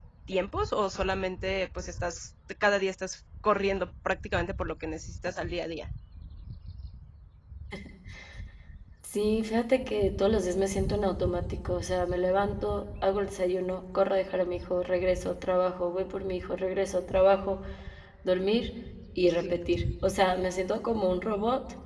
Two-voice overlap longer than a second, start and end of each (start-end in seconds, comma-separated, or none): none